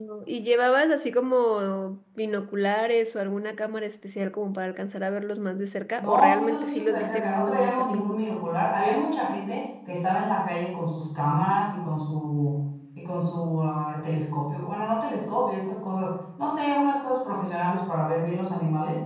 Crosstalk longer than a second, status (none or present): present